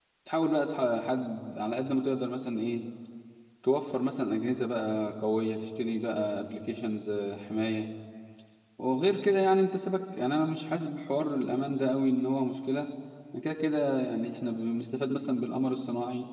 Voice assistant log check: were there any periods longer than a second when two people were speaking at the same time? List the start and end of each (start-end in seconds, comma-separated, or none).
none